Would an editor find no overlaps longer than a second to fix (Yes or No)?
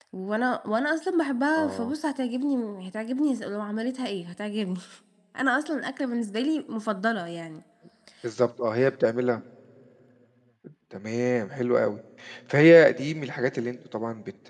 Yes